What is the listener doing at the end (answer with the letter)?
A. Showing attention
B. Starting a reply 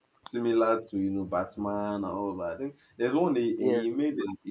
A